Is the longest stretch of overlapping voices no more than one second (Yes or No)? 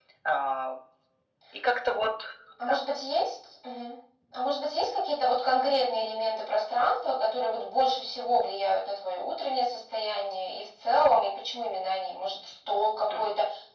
Yes